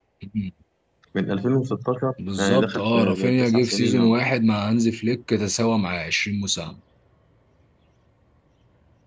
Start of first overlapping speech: 2.2 s

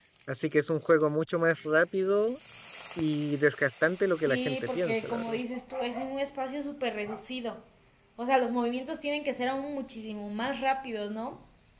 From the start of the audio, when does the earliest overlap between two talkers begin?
4.0 s

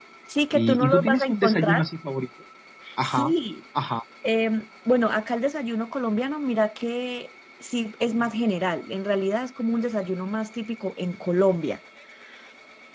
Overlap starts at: 0.5 s

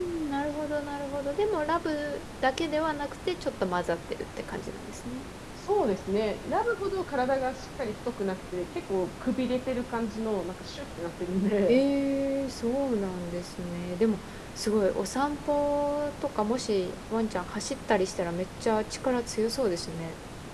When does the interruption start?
none

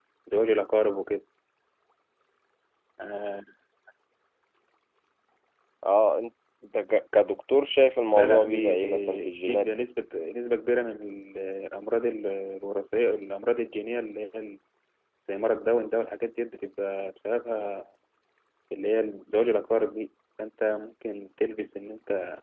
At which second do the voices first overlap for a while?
8.1 s

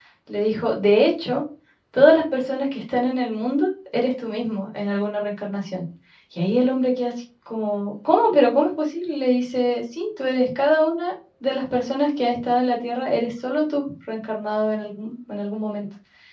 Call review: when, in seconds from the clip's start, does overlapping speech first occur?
none

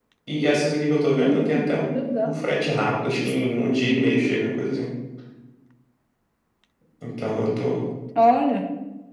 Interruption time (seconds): 1.2 s

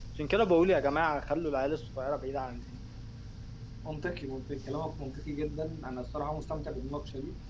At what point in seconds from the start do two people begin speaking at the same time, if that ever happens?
none

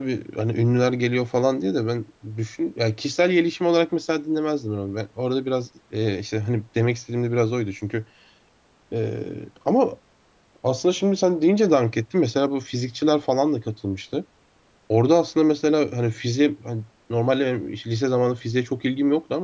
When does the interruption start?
none

